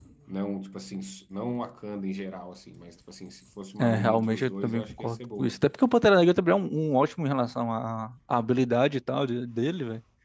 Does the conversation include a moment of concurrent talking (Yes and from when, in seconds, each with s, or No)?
Yes, from 3.8 s